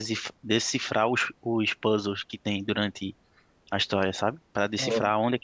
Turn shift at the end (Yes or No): No